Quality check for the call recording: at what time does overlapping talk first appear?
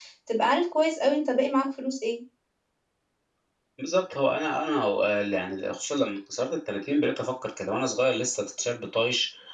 none

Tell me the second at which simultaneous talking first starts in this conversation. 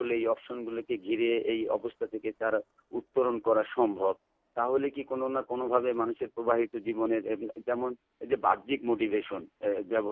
none

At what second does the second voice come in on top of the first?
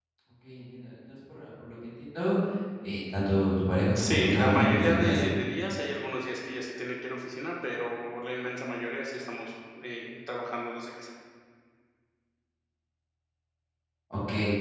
3.9 s

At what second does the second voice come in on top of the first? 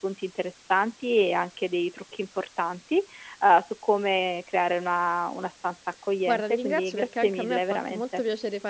6.3 s

